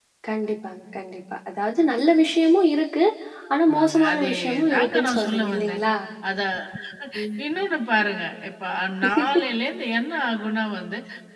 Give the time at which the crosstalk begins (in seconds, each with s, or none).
3.5 s